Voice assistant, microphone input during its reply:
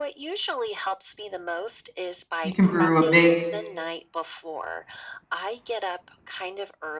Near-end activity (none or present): present